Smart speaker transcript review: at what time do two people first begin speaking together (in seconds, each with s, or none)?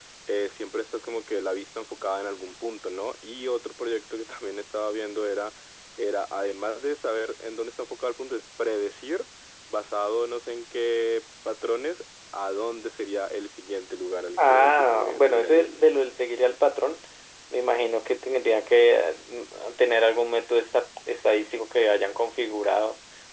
14.4 s